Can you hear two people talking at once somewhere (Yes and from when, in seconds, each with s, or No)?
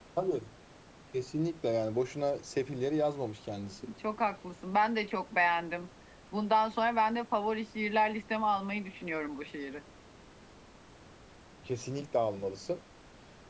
No